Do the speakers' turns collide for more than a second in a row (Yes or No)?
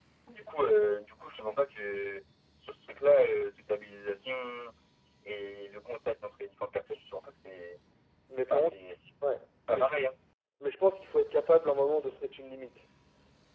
No